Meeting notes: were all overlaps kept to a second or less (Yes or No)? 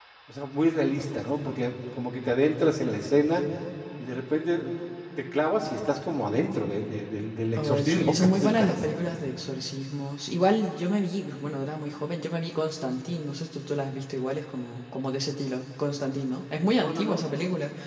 No